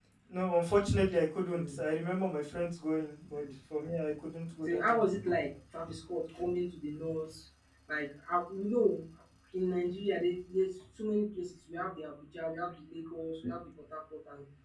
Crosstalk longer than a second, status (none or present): none